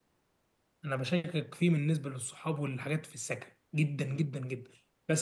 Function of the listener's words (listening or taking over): listening